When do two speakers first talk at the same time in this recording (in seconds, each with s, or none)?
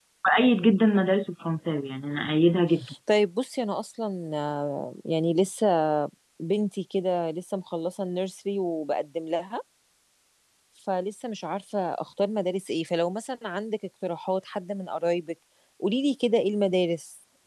none